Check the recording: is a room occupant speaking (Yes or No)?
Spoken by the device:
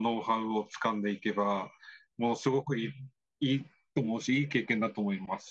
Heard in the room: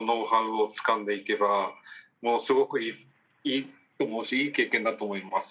No